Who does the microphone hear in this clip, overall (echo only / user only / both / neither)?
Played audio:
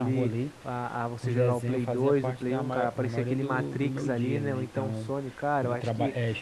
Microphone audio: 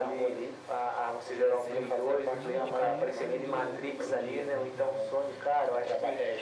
both